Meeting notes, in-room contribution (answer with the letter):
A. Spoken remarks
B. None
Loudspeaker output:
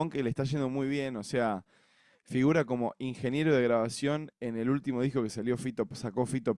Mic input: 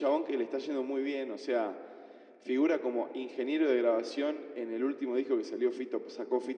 B